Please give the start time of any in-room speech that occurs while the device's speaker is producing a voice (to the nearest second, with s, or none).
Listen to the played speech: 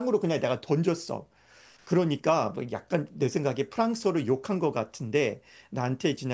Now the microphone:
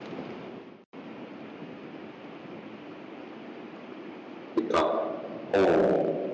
5 s